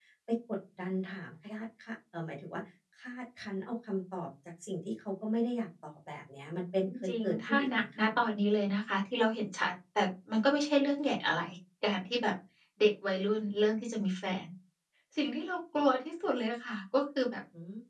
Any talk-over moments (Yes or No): Yes